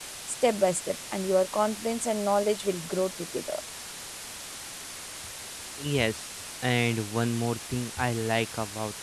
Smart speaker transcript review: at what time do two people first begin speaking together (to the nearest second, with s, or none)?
none